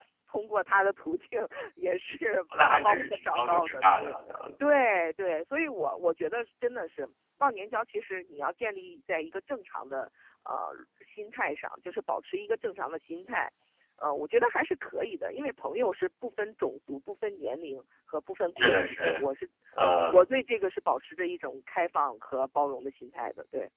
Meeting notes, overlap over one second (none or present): present